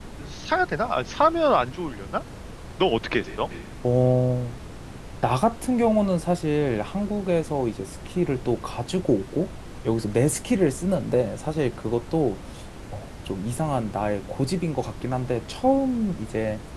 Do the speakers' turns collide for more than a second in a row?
No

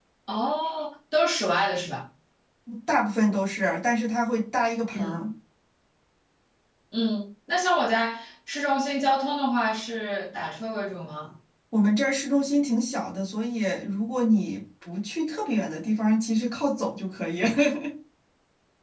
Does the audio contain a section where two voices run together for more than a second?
No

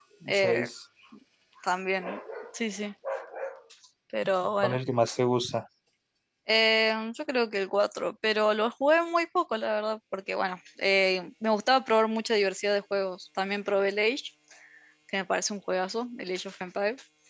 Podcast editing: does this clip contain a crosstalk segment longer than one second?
No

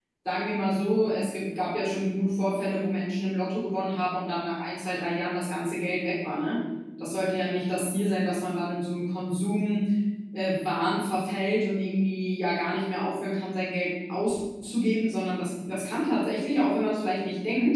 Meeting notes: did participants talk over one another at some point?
No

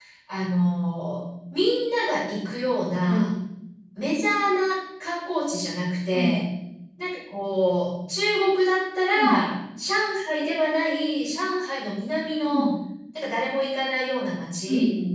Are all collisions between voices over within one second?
Yes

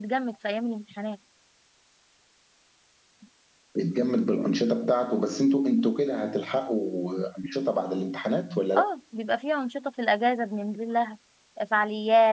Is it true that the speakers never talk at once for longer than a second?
Yes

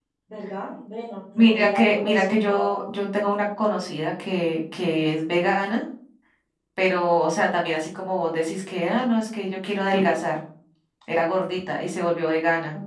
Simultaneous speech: Yes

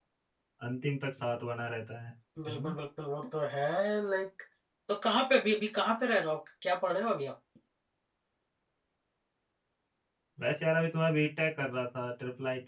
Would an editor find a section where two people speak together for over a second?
No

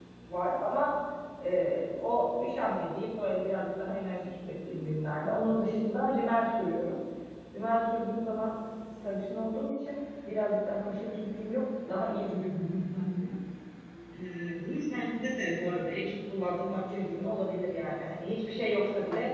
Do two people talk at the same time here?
No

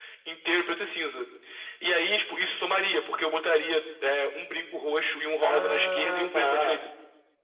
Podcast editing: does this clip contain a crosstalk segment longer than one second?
Yes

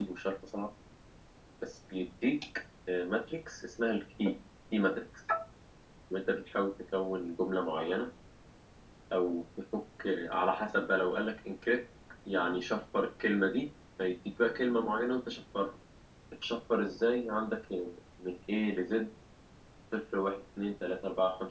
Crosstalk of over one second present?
No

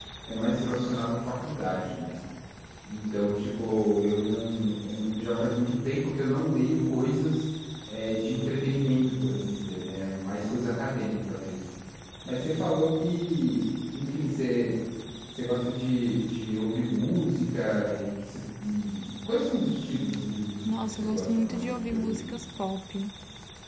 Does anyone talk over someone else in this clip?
Yes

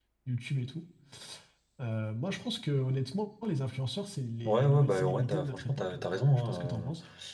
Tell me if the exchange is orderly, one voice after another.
No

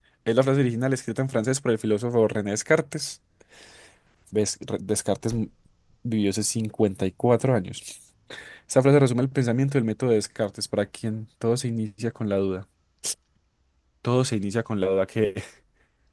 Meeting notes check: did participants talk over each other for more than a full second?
No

